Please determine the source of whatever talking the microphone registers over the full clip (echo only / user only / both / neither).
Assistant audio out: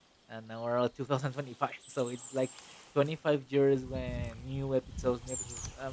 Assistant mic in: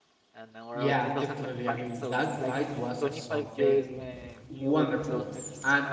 both